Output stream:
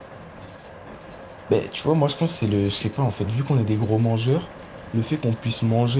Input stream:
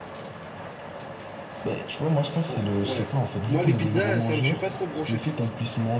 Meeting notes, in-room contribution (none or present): present